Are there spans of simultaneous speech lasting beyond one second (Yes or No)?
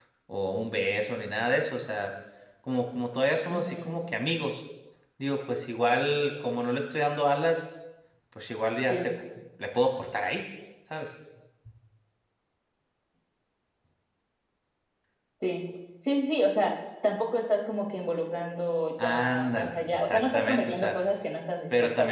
Yes